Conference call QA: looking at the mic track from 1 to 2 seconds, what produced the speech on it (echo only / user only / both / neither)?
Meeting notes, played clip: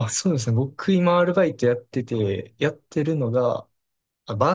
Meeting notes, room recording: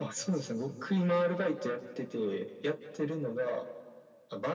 echo only